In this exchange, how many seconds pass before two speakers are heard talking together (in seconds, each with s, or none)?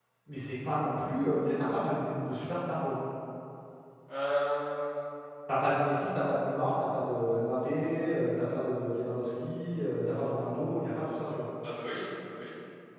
none